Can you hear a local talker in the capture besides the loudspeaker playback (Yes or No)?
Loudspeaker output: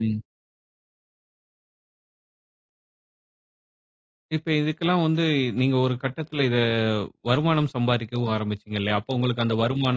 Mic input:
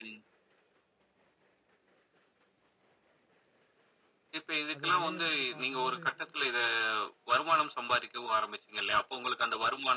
Yes